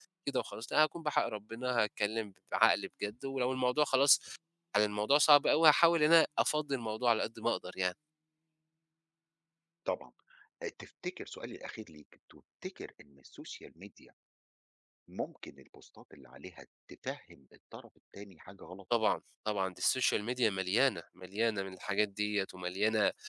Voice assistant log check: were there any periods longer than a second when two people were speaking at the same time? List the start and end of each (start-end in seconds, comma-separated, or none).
none